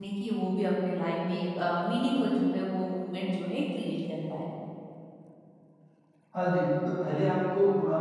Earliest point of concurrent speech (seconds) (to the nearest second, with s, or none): none